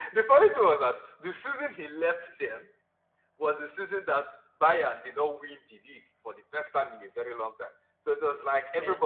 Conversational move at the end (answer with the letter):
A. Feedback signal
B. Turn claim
A